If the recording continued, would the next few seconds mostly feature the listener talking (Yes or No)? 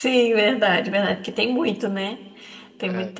No